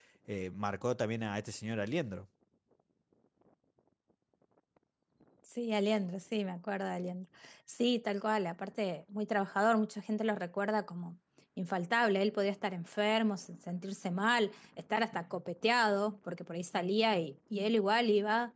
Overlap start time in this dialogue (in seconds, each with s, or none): none